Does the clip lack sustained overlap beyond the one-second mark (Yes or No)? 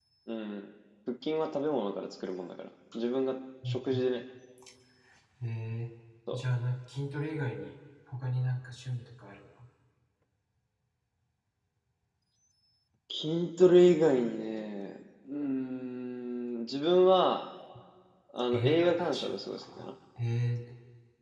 No